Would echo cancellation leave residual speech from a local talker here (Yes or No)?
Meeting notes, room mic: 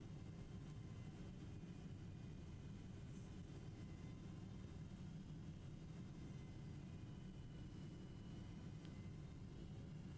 No